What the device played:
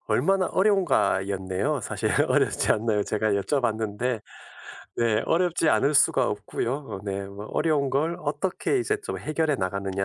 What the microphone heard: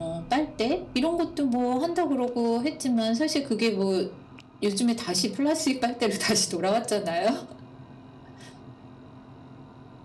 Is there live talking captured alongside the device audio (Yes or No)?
Yes